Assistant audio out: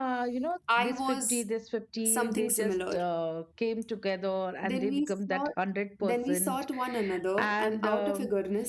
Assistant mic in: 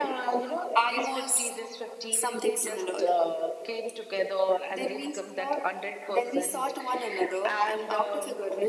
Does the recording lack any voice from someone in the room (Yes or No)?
Yes